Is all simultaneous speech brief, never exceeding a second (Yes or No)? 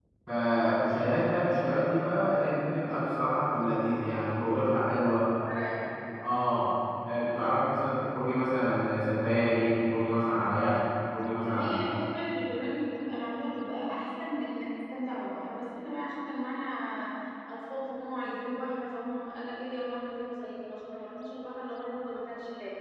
Yes